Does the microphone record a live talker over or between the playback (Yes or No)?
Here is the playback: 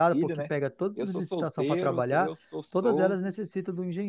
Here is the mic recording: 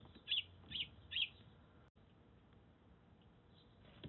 No